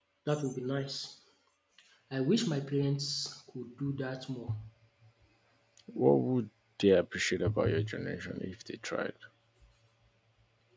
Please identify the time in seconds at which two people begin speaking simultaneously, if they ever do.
none

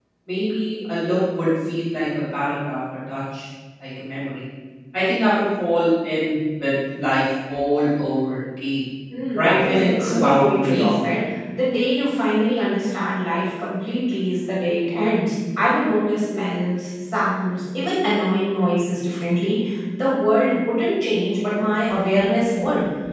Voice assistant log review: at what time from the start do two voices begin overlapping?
9.3 s

